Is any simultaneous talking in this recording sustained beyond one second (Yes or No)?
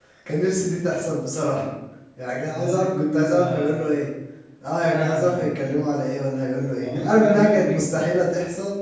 Yes